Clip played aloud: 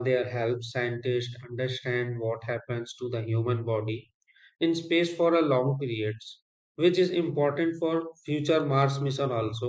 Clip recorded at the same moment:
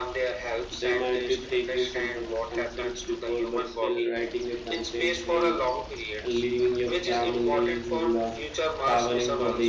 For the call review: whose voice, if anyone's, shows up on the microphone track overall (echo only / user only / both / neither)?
both